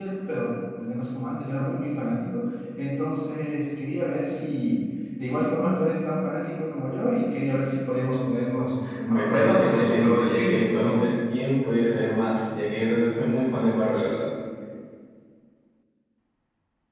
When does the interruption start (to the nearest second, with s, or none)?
9 s